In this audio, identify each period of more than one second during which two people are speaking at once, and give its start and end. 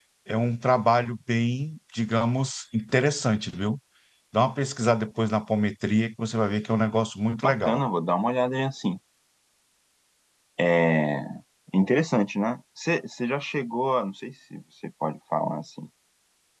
none

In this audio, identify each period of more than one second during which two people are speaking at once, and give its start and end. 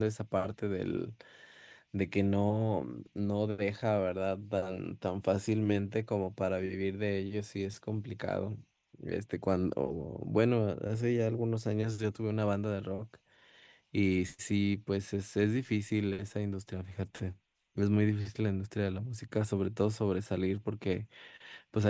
none

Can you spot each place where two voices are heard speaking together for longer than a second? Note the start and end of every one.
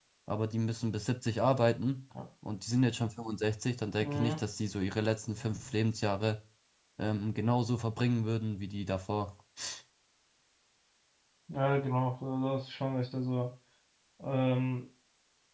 none

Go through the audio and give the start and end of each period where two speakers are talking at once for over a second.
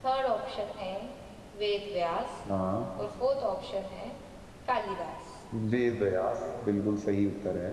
none

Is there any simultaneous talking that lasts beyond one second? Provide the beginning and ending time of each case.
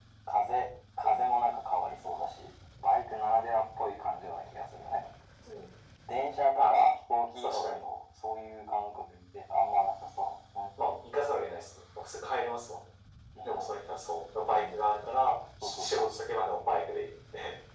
none

